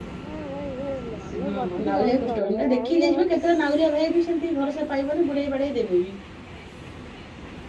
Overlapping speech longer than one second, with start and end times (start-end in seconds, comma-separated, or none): 1.4-3.9